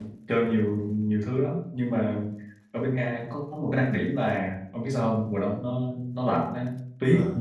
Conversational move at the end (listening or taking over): listening